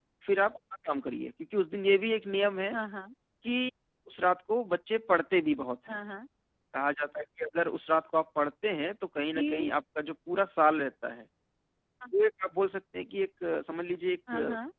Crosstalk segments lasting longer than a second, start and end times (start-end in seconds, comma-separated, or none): none